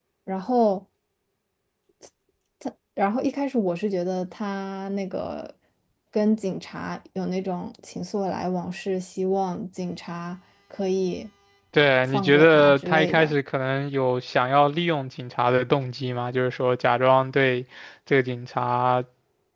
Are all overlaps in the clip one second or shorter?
No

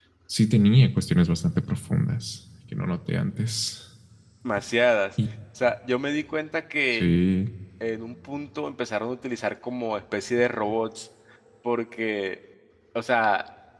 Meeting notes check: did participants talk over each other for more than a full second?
No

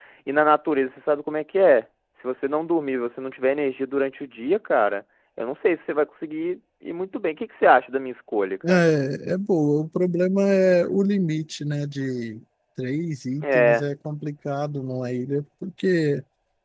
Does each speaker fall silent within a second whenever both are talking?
Yes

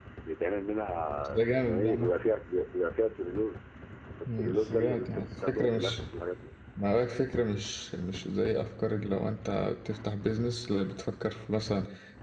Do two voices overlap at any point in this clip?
Yes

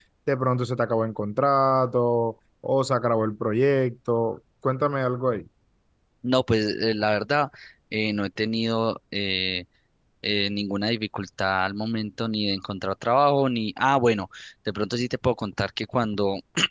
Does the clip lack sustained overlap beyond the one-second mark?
Yes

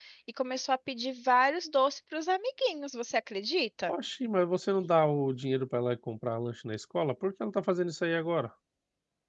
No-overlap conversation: Yes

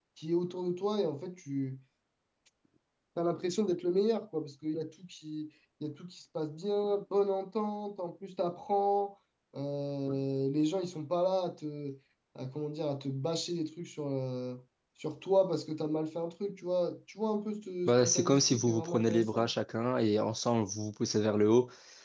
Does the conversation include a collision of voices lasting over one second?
Yes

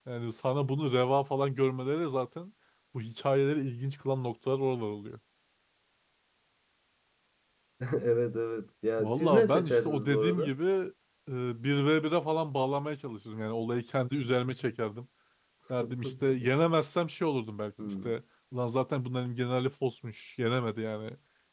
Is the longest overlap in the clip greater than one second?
Yes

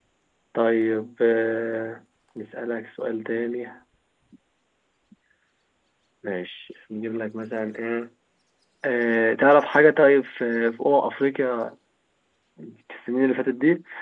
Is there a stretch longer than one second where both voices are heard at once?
No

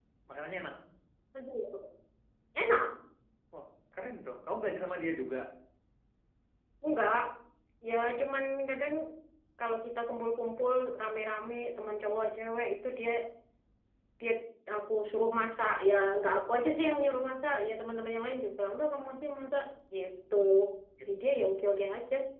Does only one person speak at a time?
Yes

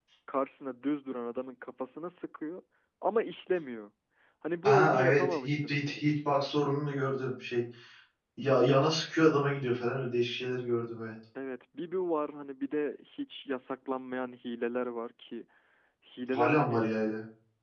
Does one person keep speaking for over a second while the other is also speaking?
Yes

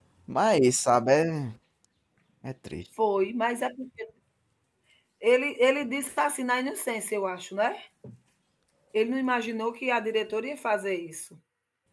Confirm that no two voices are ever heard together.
Yes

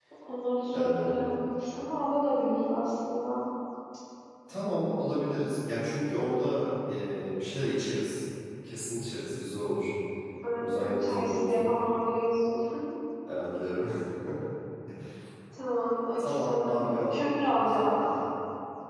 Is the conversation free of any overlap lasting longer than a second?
No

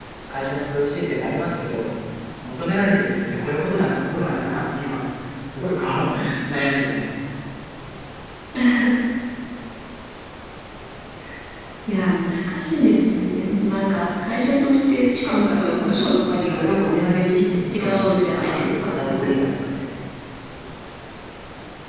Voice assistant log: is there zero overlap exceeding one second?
No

